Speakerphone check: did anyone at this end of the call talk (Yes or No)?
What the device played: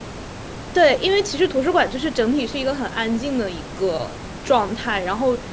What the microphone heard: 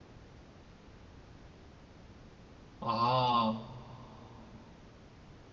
Yes